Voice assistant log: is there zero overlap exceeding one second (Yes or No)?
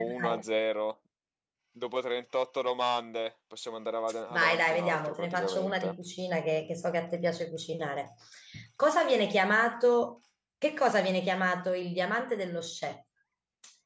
No